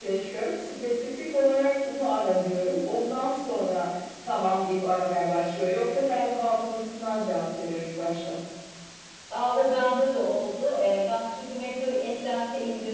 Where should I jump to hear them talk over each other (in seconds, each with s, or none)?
none